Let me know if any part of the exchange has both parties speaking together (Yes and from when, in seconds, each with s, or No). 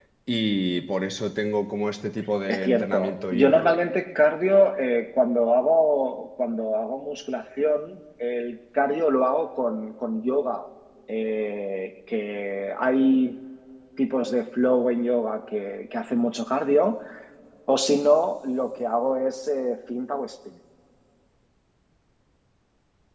Yes, from 2.5 s